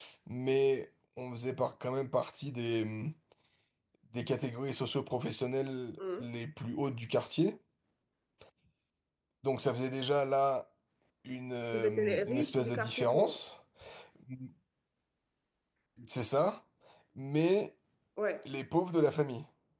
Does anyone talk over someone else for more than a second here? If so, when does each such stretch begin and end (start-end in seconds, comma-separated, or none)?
11.7-13.4